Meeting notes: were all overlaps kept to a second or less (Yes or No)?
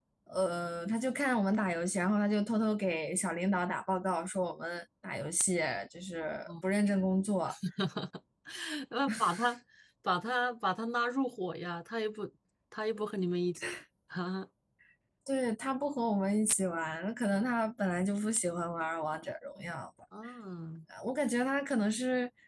Yes